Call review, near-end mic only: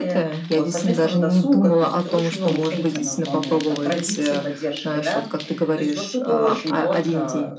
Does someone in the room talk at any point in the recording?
Yes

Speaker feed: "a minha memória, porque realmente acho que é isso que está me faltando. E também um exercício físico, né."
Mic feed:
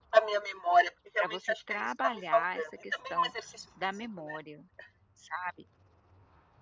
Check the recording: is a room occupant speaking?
Yes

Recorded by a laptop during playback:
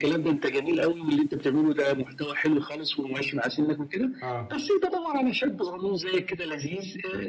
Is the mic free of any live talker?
No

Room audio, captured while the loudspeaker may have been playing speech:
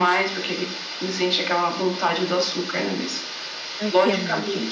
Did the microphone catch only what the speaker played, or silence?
No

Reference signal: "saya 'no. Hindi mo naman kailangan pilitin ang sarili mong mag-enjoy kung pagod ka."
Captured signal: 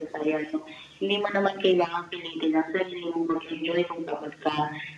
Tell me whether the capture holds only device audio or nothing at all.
Yes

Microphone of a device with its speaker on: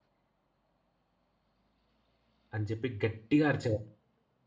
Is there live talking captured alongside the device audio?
Yes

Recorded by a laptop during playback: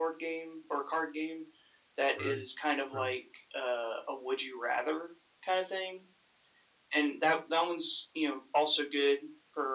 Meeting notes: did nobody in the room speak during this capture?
No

